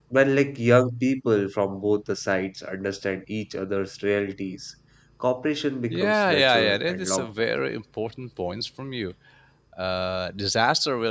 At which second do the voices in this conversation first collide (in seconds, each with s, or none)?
5.9 s